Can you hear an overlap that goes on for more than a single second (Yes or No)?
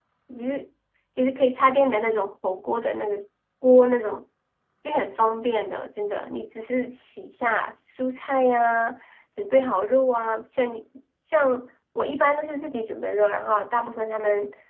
No